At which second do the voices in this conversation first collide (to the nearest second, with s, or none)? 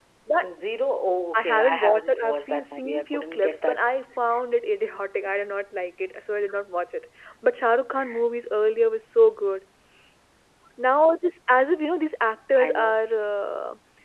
1 s